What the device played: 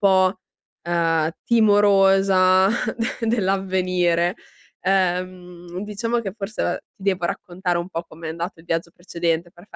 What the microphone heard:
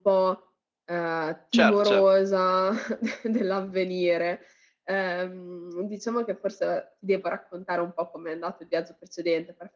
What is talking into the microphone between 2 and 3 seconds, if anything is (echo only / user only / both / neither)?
both